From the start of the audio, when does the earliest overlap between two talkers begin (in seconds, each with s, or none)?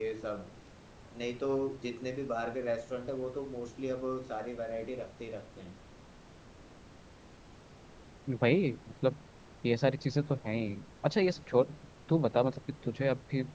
none